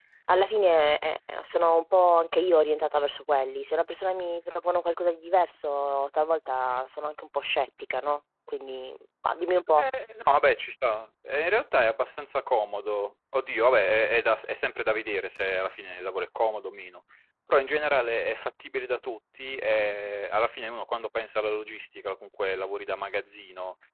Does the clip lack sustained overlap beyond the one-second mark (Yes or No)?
Yes